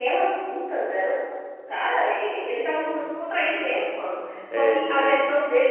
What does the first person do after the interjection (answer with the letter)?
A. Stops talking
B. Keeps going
B